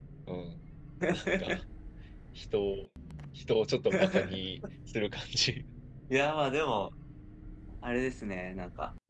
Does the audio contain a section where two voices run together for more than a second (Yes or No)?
No